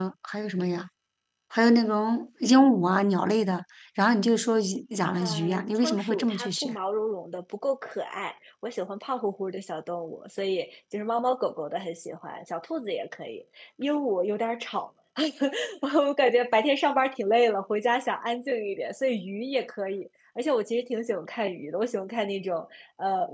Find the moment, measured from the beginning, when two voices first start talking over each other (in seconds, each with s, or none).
5.2 s